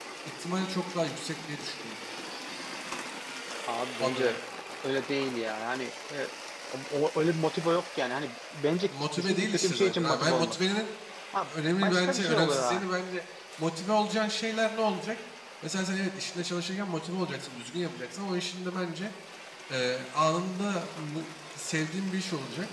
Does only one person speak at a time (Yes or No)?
No